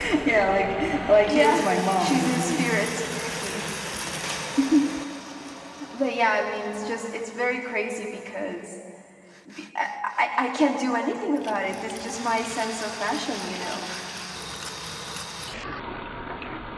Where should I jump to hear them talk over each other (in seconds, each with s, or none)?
1.2 s